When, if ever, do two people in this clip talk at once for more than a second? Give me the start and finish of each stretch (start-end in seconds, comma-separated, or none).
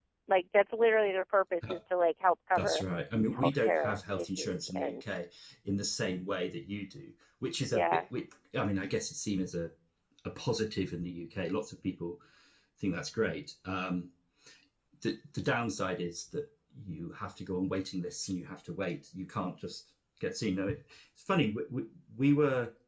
3.3-5.0